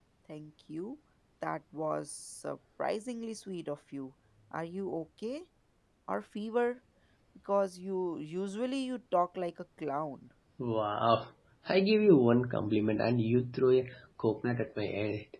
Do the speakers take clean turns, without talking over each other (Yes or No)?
Yes